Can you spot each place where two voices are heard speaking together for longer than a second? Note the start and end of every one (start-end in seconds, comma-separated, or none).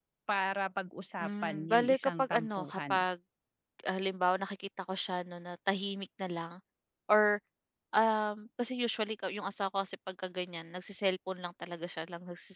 1.2-3.0